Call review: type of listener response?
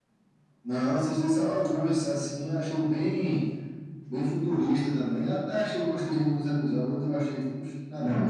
taking over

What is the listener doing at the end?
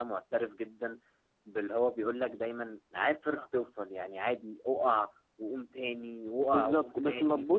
taking over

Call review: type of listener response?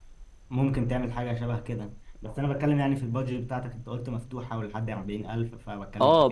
taking over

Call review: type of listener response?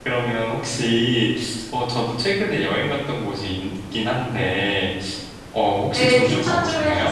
taking over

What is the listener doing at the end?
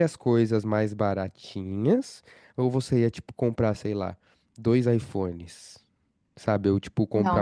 taking over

